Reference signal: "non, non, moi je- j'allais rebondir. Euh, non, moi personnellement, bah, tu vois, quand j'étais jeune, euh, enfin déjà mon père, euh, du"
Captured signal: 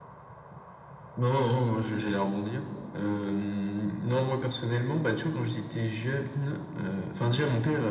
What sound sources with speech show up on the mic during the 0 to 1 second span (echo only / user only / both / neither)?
neither